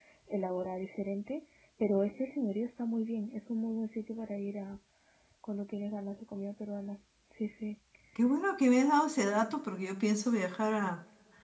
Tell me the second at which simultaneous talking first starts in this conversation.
none

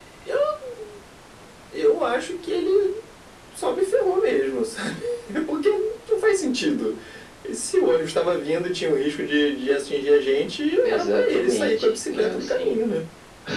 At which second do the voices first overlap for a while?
11 s

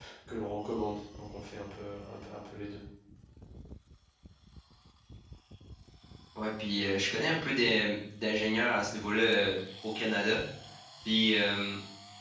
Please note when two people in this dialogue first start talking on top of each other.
none

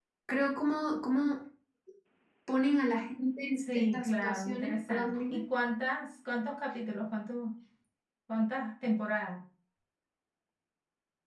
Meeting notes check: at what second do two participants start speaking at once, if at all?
4 s

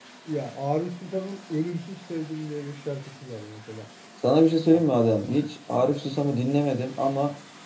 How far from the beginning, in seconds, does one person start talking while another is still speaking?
none

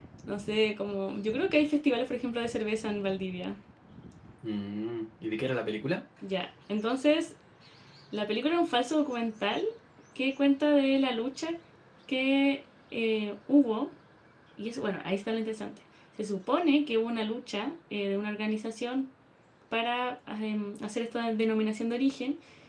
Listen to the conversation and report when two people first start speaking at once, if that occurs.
none

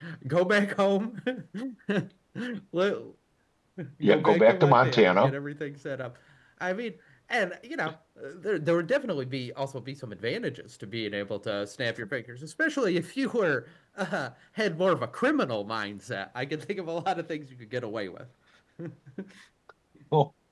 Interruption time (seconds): 4 s

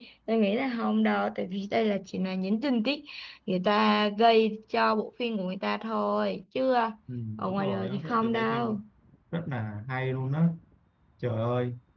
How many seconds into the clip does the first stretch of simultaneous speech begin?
7 s

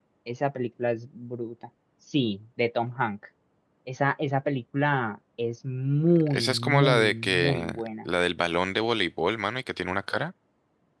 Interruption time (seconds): 6 s

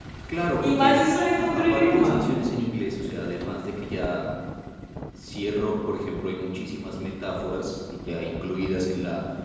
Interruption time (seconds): 1 s

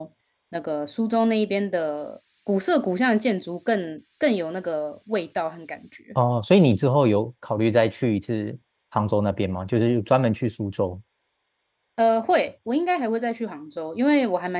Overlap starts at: none

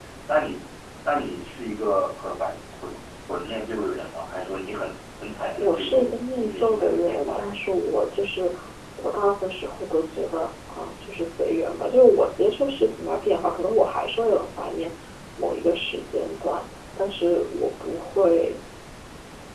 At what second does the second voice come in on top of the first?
6 s

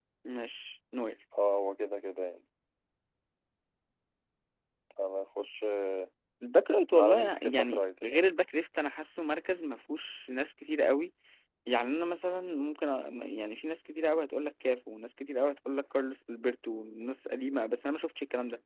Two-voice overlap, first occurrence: 7 s

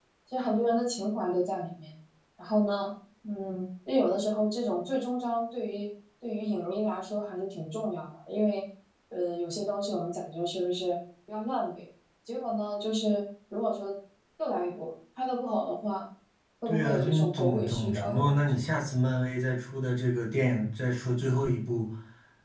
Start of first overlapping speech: 17 s

